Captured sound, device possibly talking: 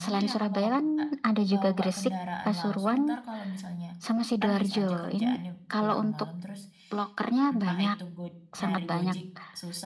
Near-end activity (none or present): present